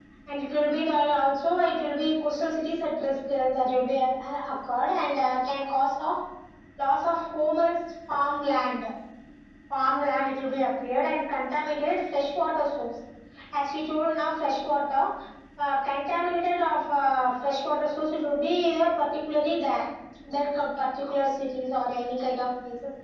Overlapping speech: No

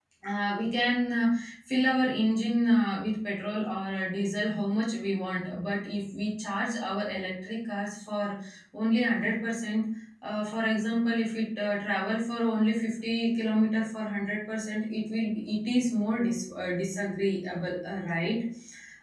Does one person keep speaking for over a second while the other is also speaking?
No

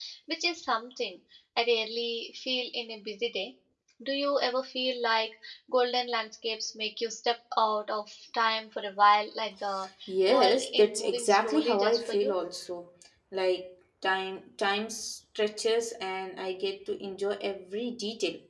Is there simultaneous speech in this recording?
Yes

